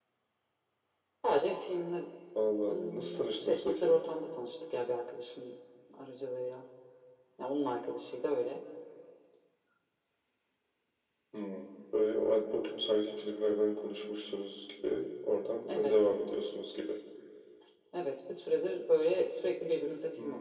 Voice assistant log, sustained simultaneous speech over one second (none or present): present